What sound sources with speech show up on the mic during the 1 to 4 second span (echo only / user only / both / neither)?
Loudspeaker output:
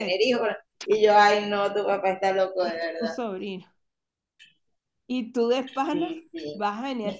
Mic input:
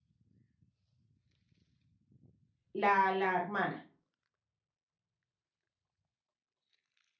user only